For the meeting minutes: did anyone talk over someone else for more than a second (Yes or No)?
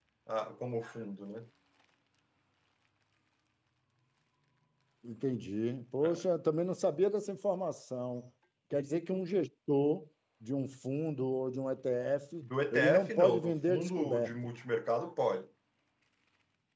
Yes